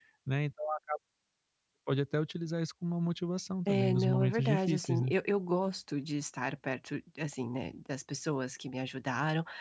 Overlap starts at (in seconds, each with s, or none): 3.7 s